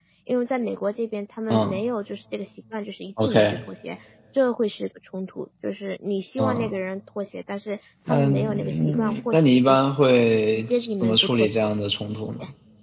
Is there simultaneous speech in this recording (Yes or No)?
Yes